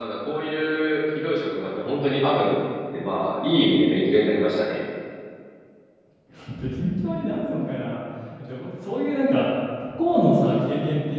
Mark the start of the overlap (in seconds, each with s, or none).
none